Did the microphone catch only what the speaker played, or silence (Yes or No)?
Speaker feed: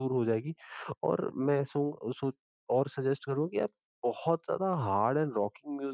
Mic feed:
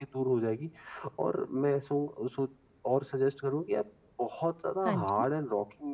No